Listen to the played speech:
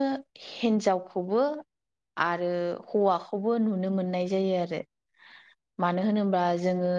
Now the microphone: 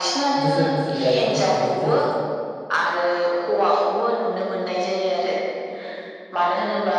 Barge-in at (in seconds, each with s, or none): 0.4 s